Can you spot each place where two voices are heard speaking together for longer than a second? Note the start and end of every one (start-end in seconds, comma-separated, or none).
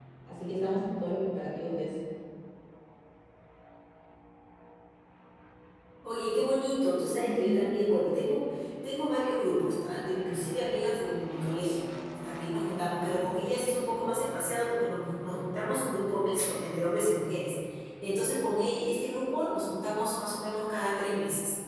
none